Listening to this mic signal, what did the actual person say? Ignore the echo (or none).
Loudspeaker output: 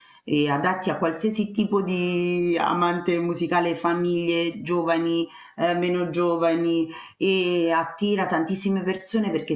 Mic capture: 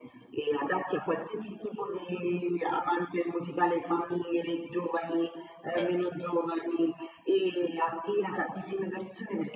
Certo.